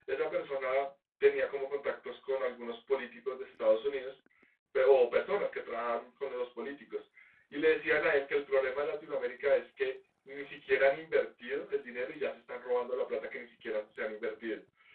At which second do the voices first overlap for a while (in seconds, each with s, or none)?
none